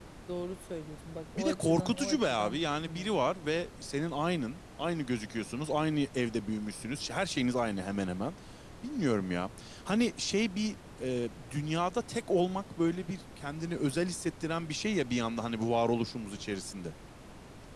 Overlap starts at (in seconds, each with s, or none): 1.4 s